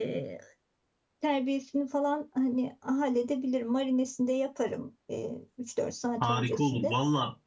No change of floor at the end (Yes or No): No